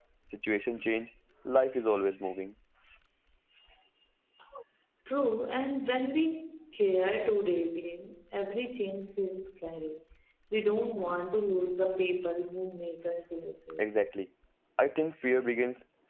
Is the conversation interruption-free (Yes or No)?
Yes